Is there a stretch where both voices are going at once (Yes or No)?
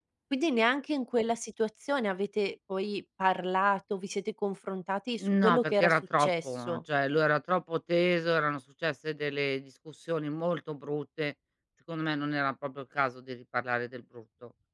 Yes